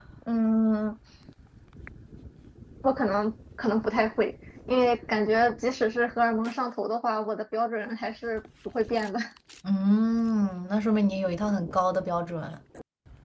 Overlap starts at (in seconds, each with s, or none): none